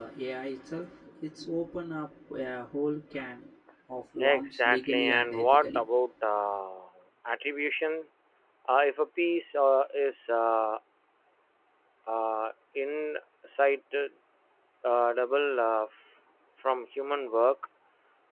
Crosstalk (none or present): present